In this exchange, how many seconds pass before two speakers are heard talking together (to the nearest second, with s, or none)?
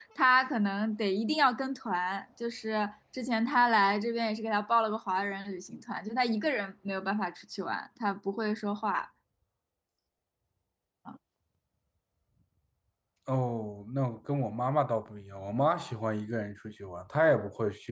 none